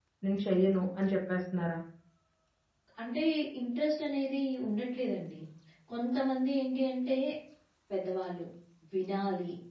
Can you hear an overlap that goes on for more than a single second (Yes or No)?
No